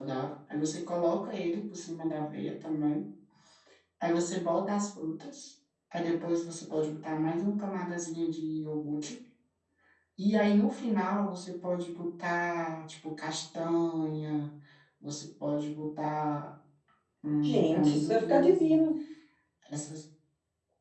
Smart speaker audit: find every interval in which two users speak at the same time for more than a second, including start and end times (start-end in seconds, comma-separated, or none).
17.4-18.9